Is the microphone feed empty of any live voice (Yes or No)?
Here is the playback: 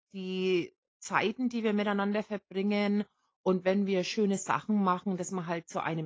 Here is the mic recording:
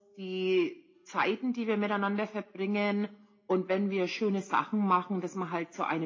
Yes